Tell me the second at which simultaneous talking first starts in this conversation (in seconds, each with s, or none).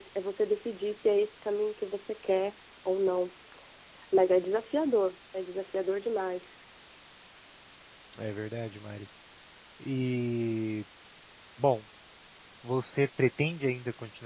none